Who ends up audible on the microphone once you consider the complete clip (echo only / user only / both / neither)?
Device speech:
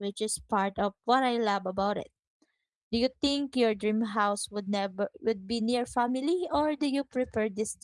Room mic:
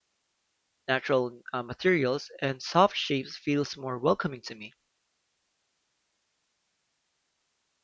user only